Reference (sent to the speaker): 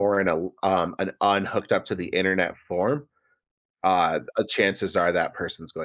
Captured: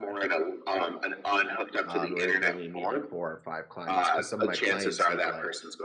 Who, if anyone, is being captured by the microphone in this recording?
both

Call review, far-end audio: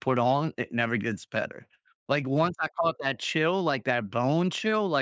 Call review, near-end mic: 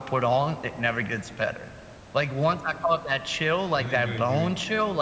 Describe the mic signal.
both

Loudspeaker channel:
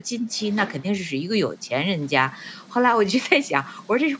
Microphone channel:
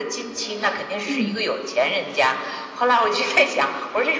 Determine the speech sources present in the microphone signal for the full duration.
both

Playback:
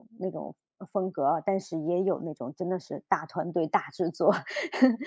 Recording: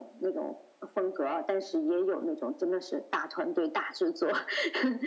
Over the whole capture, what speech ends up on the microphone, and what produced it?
echo only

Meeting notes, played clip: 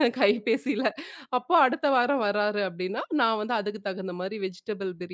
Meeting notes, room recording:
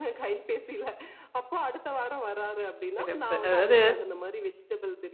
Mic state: both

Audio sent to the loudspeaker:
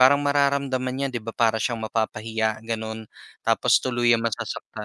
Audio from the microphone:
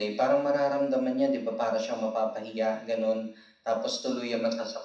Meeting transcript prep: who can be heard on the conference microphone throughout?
echo only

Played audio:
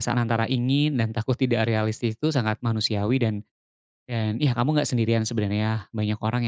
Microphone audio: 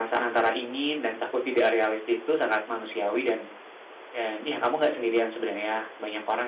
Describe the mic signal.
echo only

